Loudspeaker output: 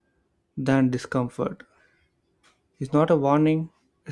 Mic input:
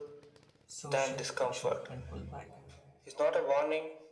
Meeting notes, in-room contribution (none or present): present